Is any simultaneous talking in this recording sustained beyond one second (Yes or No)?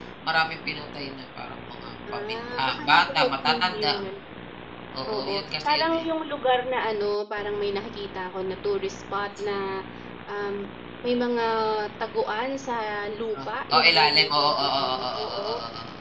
Yes